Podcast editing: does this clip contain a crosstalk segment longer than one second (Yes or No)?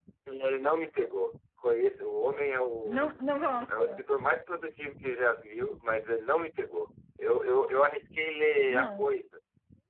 No